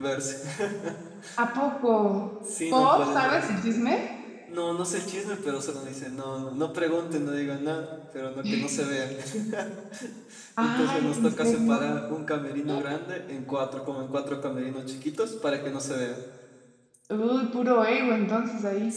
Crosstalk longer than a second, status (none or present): present